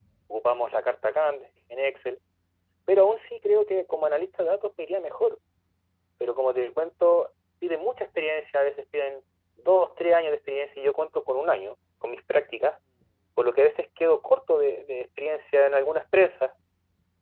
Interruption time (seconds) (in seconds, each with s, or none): none